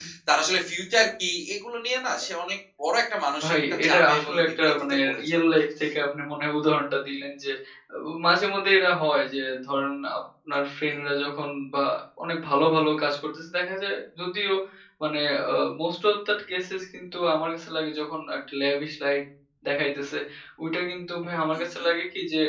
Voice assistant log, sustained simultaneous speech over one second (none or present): present